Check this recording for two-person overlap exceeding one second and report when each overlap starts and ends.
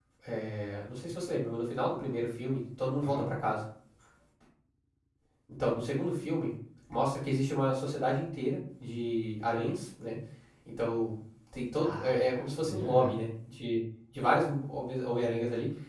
11.8-13.1

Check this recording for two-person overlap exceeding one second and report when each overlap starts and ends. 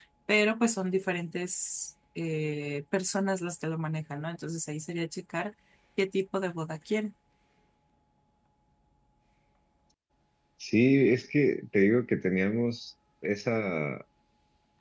none

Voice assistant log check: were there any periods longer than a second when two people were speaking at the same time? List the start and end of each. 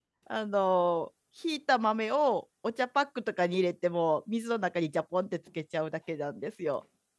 none

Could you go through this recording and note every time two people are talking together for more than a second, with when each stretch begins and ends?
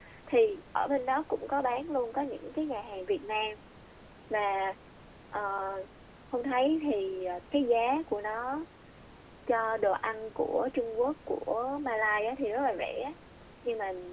none

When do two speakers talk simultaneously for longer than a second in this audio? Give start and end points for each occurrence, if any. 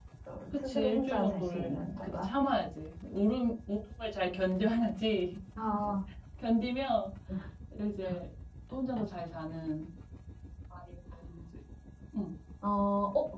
0.6-2.3

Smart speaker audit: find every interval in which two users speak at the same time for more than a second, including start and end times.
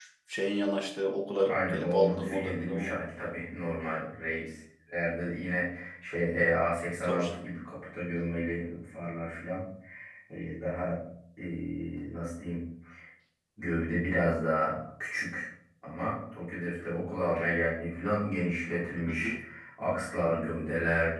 1.4-2.9

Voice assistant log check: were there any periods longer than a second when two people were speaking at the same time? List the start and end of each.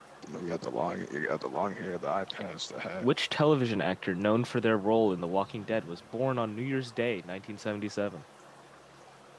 none

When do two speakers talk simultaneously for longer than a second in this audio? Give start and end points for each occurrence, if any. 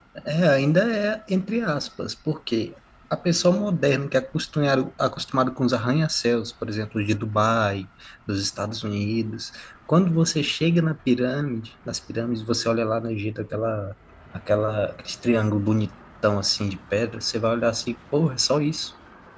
none

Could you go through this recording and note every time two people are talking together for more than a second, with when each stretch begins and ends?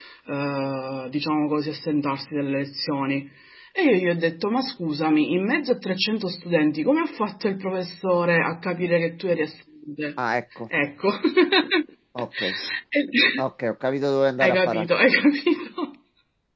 none

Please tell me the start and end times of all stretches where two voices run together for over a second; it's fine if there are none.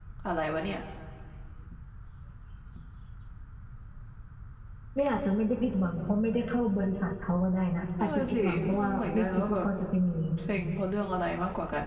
8.0-9.7

